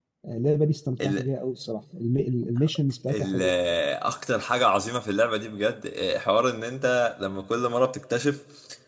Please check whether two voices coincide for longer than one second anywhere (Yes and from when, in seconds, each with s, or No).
No